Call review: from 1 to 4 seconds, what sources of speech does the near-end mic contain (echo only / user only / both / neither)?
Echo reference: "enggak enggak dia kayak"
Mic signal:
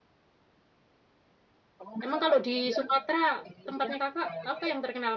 both